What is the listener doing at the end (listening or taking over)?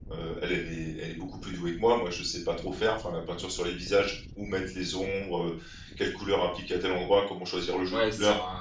taking over